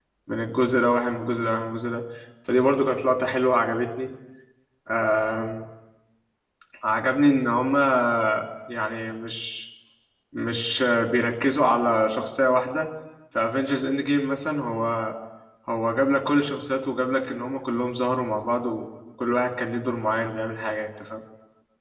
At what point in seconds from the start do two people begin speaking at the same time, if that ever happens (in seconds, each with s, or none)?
none